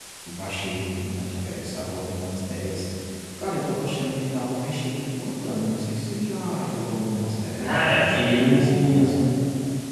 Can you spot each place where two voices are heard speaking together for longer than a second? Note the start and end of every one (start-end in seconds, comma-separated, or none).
7.6-9.0